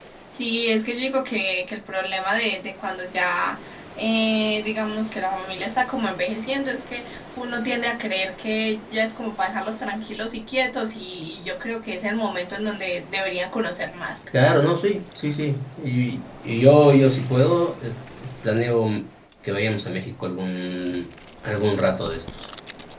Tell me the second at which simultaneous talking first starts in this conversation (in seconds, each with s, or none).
none